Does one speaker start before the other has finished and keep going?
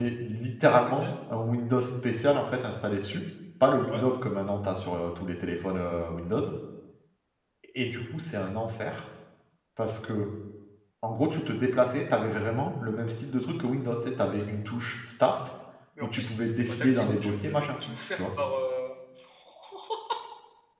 Yes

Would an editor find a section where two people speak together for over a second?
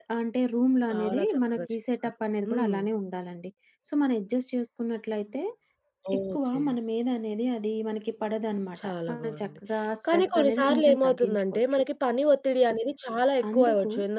Yes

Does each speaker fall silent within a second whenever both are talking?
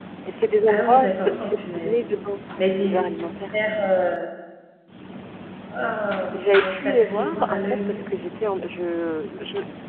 No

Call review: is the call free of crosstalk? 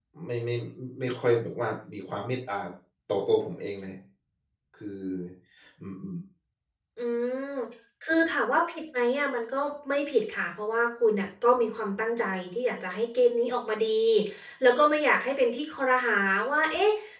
Yes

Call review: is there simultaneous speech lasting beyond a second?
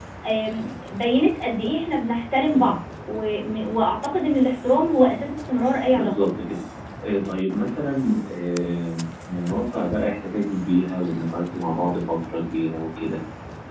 No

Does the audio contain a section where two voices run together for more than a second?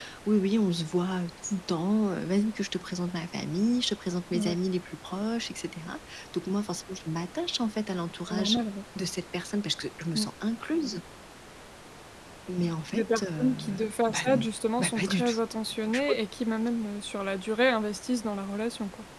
Yes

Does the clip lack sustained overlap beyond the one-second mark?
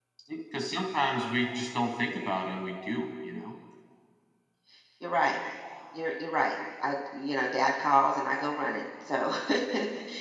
Yes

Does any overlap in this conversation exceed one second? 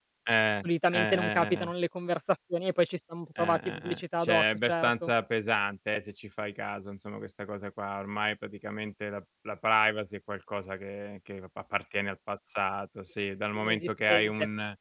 Yes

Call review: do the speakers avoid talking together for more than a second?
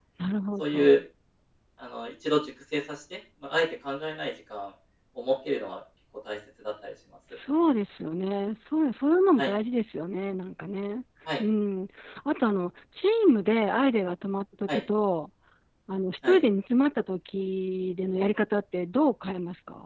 Yes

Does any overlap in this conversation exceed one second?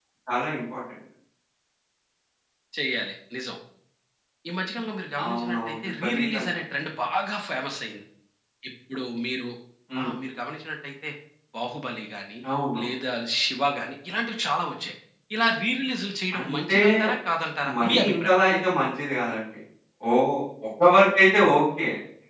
Yes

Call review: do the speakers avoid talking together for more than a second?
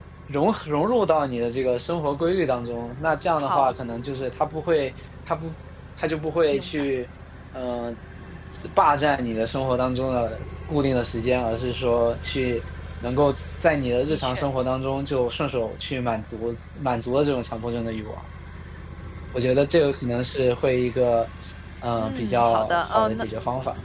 No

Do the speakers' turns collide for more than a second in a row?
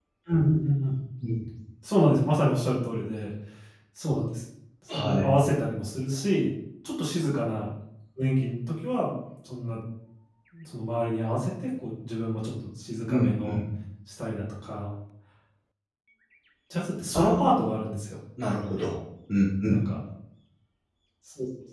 No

